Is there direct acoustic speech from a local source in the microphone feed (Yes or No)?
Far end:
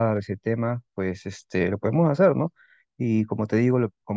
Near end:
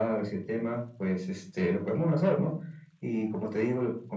No